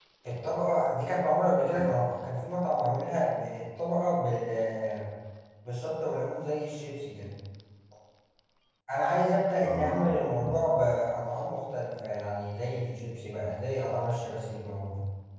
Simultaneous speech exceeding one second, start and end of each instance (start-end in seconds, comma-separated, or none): 9.6-10.9